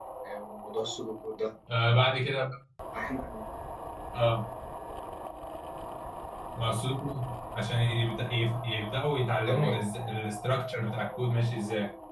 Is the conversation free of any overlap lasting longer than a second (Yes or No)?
Yes